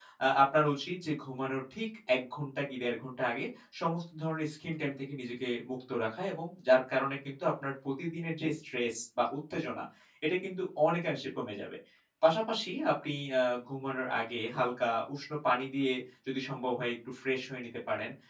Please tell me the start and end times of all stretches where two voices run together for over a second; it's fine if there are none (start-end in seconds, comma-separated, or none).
none